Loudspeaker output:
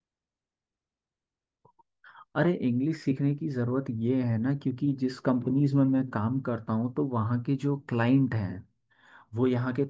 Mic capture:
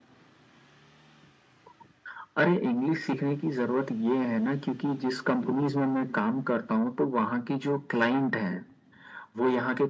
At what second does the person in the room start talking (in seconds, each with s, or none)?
none